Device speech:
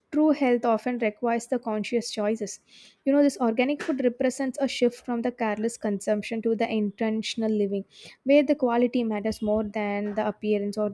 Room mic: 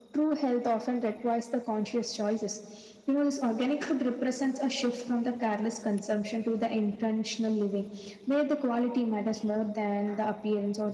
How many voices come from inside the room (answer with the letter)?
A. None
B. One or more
A